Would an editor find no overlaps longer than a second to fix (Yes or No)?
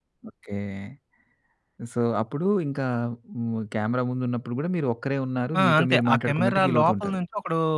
No